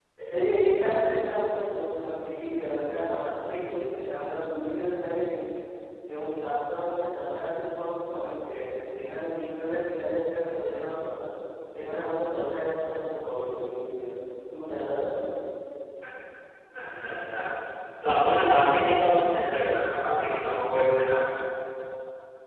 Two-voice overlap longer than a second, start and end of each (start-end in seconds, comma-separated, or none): none